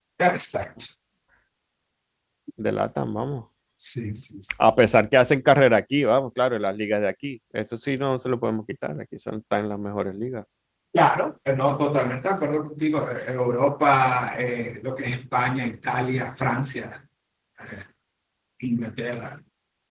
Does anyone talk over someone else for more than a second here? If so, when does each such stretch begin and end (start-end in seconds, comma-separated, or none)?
none